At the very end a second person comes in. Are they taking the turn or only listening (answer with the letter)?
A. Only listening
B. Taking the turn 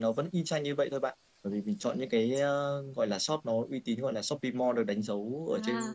B